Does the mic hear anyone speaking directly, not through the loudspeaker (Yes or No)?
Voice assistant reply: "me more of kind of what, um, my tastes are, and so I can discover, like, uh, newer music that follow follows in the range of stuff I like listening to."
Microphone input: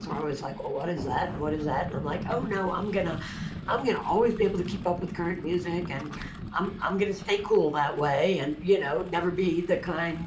Yes